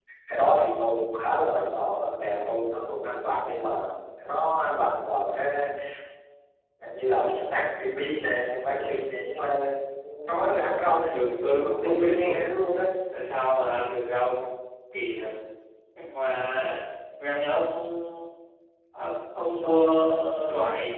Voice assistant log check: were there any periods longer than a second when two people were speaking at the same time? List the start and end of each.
11.1-12.4

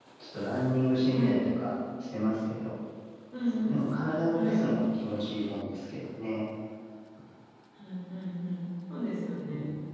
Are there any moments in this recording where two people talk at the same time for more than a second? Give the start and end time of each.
none

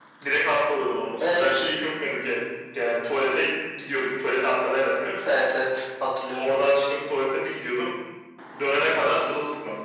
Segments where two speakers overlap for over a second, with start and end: none

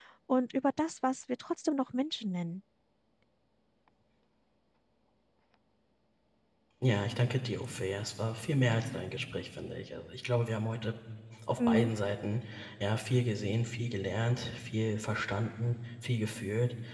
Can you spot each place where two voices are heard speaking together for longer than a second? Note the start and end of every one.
none

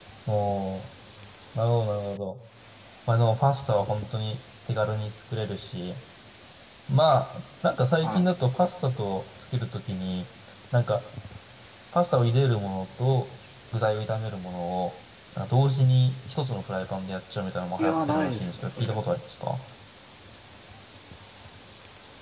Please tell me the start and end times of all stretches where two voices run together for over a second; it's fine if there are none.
17.8-19.0

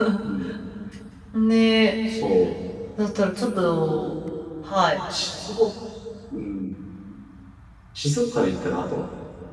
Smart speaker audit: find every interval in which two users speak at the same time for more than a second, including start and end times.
none

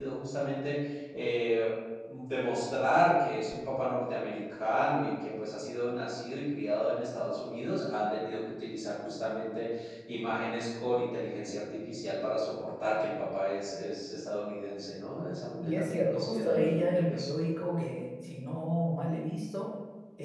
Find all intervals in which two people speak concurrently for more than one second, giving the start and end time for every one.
15.7-17.3

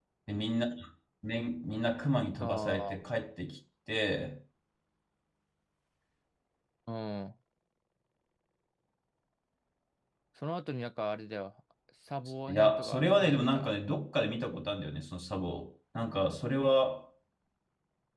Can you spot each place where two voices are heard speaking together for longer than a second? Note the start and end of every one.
12.5-13.8

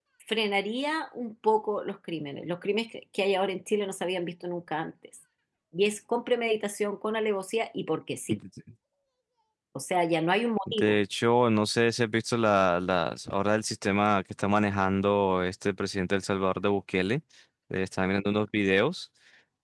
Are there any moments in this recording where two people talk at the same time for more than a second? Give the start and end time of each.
none

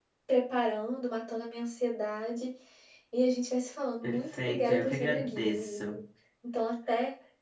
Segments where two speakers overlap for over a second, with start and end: 4.0-6.0

